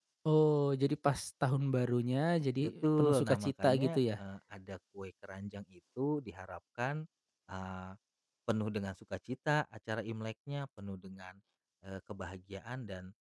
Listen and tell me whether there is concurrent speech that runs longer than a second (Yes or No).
Yes